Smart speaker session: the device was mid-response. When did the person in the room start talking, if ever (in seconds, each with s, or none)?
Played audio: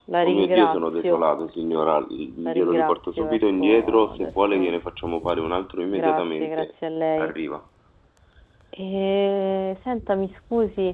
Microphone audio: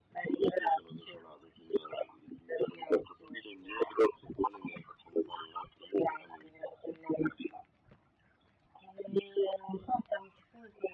none